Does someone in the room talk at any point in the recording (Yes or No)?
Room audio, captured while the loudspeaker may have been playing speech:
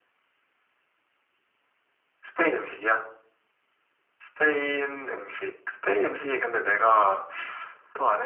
No